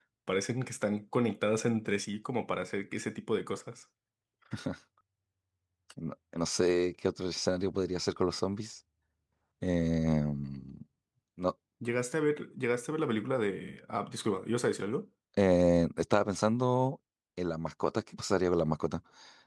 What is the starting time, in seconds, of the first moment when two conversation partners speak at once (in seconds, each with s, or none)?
none